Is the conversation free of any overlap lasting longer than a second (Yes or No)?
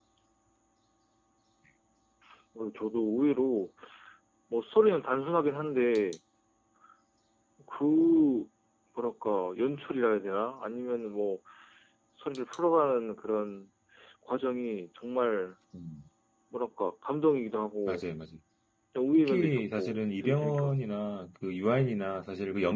No